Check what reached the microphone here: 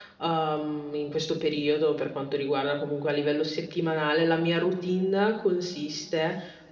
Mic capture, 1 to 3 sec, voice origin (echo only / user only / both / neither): user only